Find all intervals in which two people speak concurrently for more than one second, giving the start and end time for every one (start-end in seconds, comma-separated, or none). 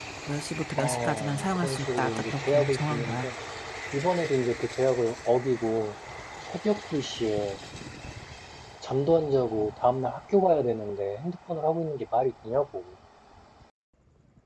0.8-3.3